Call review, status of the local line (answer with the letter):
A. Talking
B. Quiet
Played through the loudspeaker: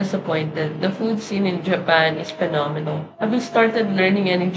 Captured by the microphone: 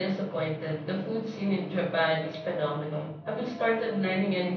B